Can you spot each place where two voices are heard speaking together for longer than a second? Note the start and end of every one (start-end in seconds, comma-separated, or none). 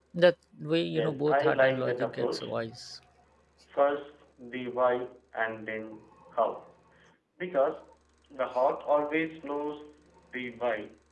0.9-2.5